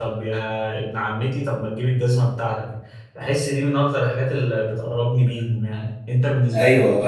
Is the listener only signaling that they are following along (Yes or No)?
No